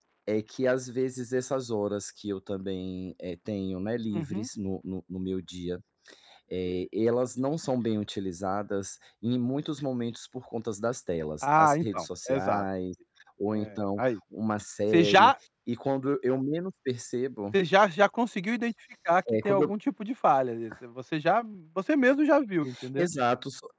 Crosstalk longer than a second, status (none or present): present